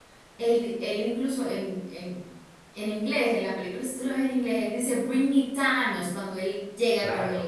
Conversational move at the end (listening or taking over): taking over